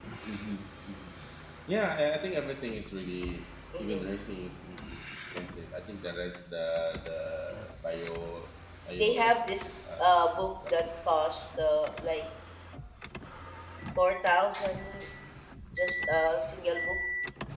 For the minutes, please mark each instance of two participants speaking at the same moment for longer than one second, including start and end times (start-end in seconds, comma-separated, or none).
none